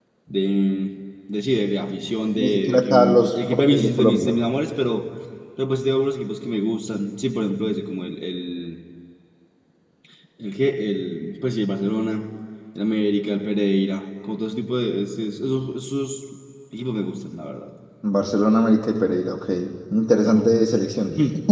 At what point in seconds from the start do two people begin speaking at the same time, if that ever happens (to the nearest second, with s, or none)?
2 s